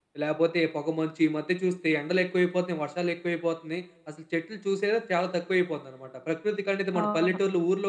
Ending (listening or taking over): listening